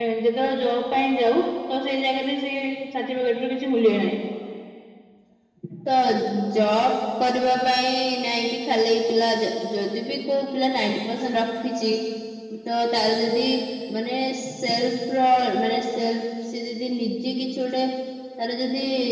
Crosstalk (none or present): none